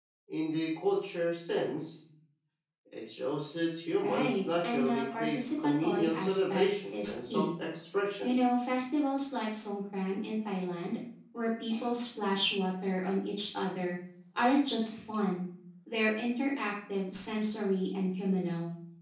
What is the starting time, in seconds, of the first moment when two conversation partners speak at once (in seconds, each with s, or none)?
4.0 s